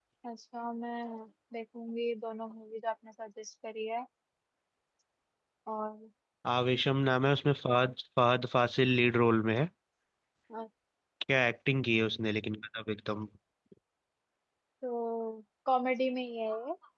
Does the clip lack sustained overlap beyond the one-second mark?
Yes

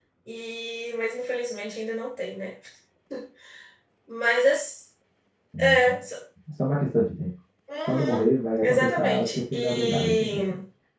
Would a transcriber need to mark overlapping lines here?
Yes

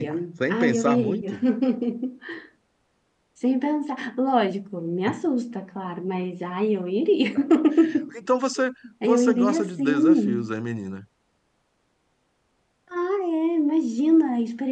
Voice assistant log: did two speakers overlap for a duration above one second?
Yes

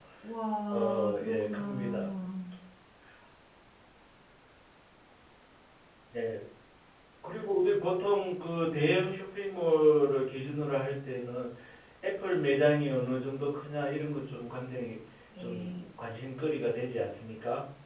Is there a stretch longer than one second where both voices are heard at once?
Yes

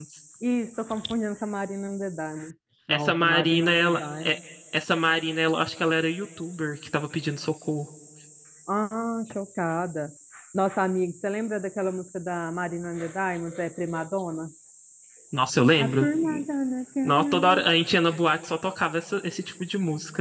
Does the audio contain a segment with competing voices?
Yes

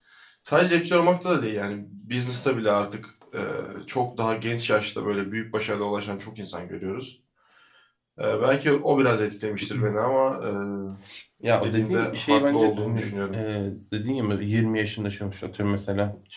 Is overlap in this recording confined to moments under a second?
No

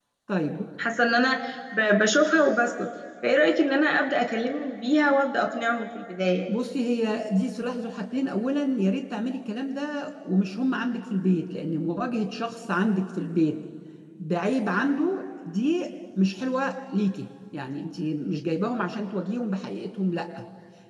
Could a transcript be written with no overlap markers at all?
Yes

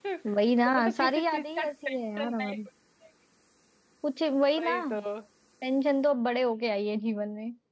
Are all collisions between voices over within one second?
No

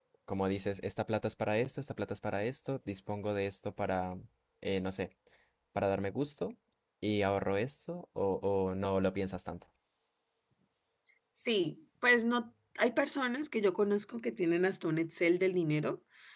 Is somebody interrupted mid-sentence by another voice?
No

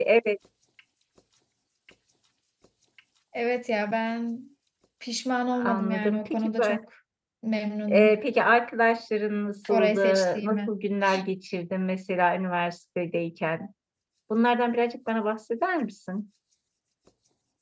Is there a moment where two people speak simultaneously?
Yes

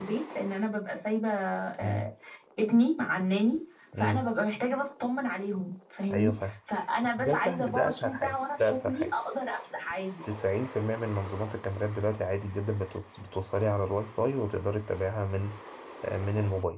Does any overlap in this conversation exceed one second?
Yes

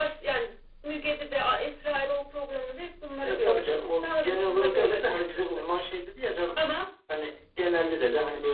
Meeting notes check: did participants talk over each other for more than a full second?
Yes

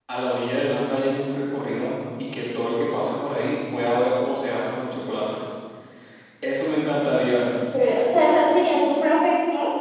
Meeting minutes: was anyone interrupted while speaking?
No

